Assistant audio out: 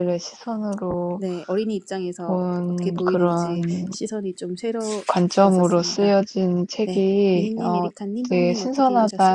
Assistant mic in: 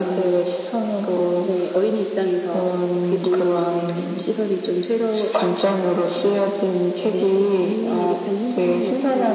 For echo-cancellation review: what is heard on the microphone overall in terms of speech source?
echo only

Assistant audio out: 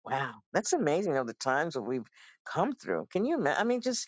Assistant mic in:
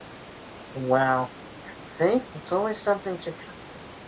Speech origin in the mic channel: user only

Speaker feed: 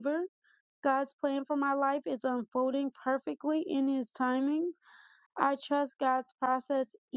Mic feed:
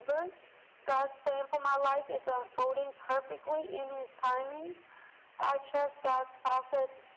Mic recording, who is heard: echo only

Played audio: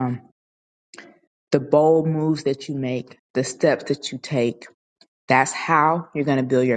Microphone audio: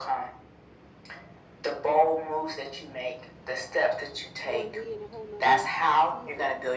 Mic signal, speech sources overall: both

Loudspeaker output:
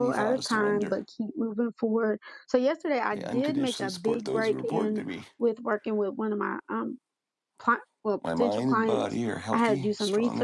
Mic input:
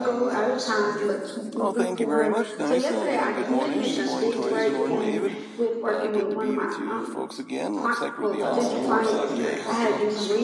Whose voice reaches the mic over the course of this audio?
both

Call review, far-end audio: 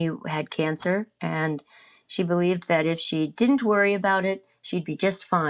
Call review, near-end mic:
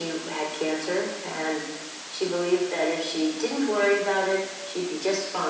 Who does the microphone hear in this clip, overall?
echo only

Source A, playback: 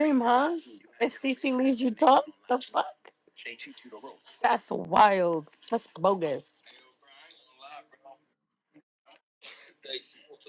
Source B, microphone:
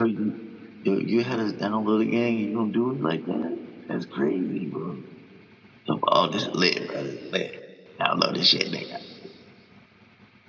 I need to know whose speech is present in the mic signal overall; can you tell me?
user only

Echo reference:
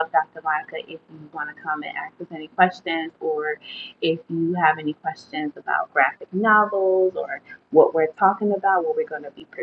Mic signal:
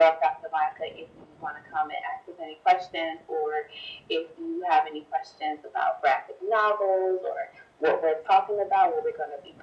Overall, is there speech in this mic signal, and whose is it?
echo only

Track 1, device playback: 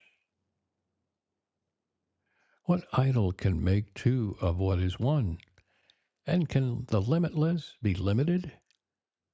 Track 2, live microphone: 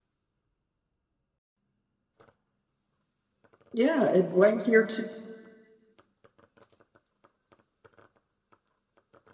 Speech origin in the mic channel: user only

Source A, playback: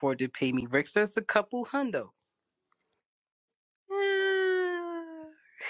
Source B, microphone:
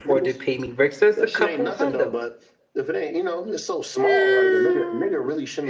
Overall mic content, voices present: both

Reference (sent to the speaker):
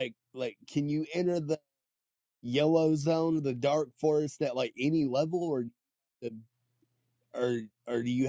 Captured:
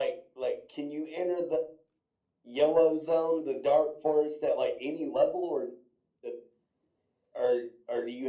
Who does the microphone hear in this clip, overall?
echo only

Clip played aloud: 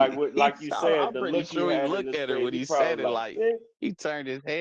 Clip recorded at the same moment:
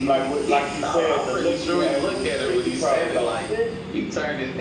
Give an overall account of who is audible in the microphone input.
echo only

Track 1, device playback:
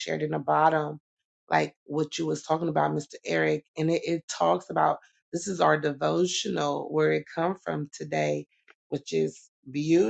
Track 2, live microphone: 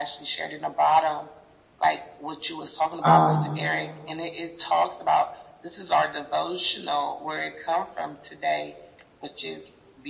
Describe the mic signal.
both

